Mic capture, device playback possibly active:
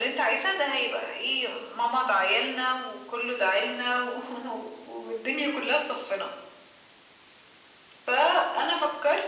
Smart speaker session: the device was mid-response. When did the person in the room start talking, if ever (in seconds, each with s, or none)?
none